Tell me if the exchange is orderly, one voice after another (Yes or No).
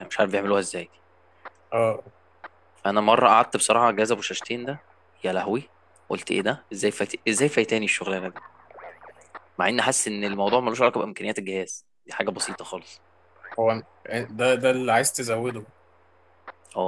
Yes